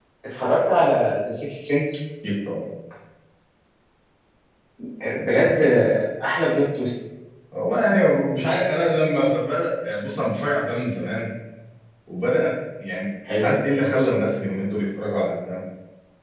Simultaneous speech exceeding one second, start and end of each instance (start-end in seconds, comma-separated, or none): none